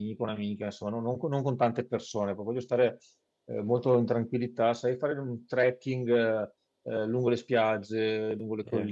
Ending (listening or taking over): listening